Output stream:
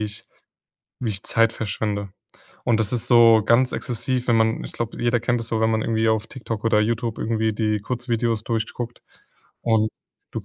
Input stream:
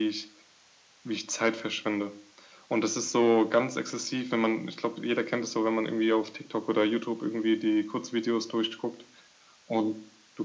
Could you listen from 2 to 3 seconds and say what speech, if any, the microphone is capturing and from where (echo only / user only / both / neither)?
echo only